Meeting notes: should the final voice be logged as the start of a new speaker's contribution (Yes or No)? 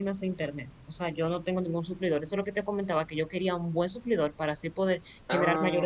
No